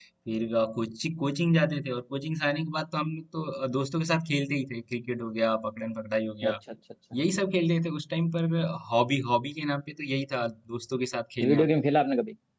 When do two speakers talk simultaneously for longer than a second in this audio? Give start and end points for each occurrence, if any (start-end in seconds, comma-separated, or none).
none